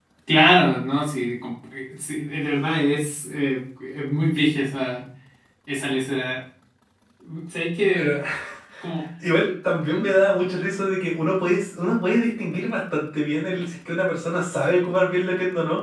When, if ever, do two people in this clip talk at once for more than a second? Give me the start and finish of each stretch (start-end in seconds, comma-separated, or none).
none